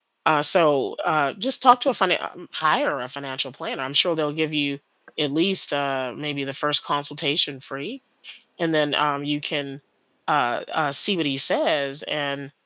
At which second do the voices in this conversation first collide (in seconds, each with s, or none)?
none